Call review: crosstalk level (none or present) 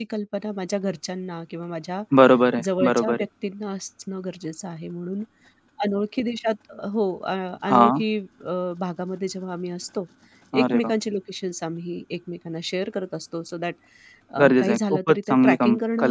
present